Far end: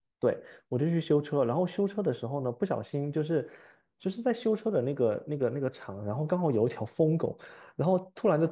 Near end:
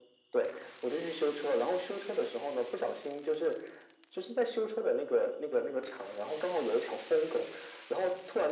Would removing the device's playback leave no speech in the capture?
Yes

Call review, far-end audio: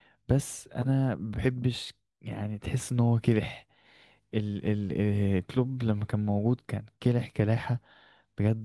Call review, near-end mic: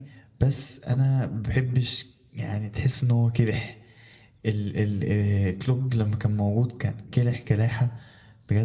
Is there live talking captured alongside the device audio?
No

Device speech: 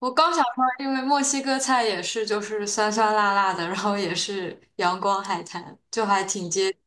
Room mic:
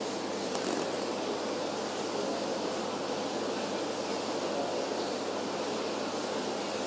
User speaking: No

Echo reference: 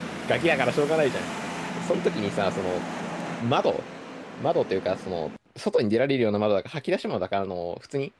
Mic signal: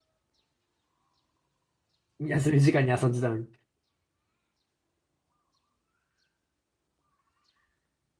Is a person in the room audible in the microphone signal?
Yes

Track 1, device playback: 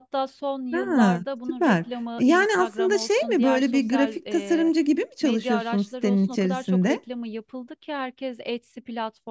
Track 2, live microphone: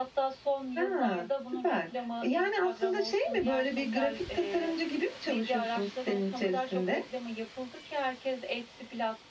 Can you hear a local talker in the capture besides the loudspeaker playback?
No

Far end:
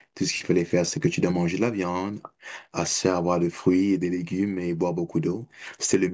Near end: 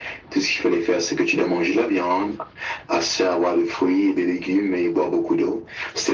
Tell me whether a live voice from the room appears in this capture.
No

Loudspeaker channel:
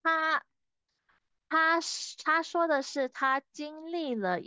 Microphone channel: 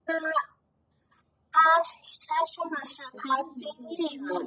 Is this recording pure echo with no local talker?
No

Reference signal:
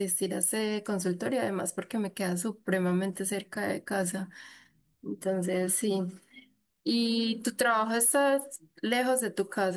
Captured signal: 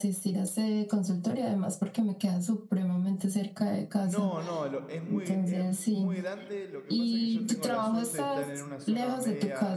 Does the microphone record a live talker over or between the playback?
Yes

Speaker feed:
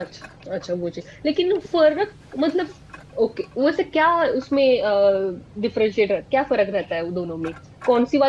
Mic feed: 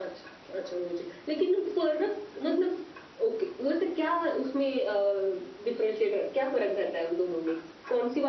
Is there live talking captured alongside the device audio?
No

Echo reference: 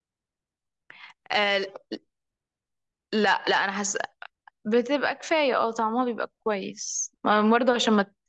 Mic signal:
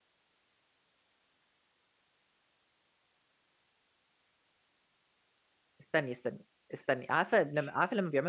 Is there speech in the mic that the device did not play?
Yes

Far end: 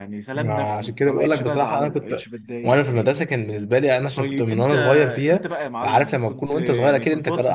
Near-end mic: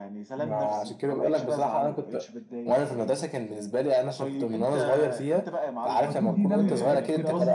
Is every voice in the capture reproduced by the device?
No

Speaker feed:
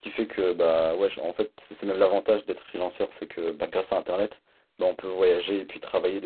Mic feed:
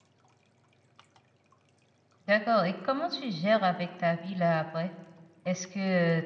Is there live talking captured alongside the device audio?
Yes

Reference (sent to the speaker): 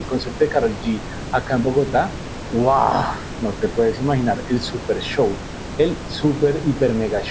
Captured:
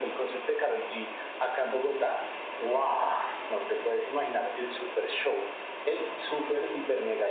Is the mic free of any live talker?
Yes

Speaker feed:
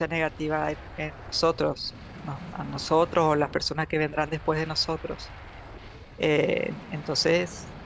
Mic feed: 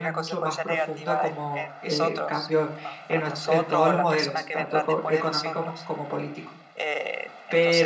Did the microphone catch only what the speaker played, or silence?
No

